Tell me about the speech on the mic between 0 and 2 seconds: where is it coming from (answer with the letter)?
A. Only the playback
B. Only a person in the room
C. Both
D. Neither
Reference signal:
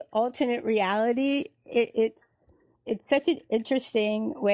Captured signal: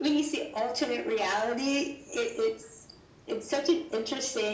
A